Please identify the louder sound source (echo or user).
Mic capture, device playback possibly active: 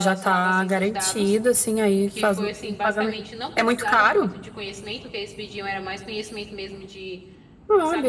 echo